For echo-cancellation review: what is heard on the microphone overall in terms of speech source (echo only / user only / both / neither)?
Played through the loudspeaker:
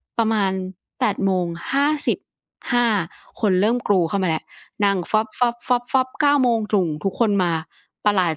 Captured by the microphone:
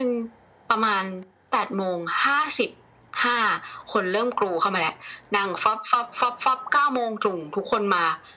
echo only